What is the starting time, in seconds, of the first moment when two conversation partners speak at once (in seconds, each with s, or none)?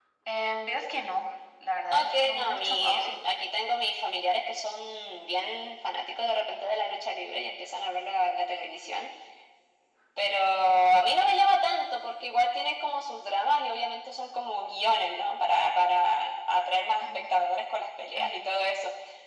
1.9 s